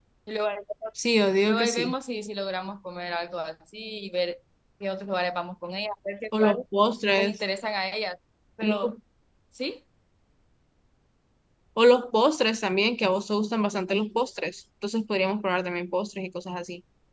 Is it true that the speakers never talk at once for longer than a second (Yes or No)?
Yes